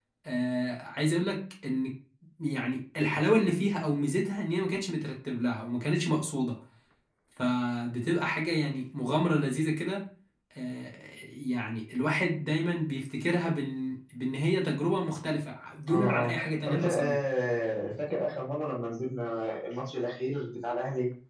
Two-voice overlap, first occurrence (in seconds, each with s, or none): 15.9 s